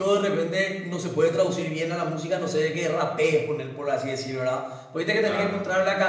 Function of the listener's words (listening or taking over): listening